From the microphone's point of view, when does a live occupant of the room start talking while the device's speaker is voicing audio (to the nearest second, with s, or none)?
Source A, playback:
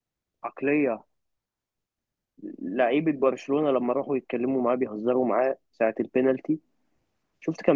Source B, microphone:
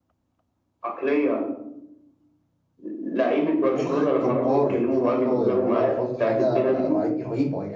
4 s